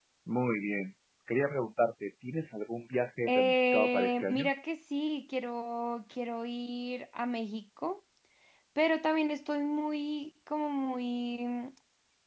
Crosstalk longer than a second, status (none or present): present